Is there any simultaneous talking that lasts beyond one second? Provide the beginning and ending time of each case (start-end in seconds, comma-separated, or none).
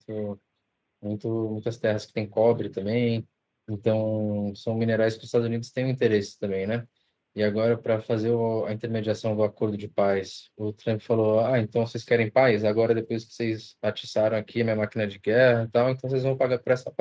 none